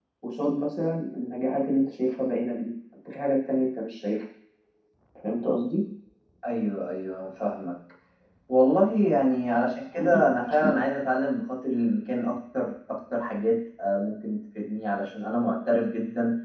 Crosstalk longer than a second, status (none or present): none